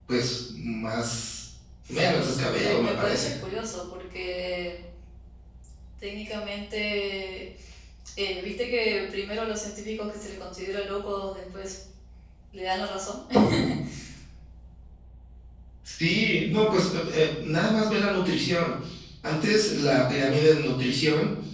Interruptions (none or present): present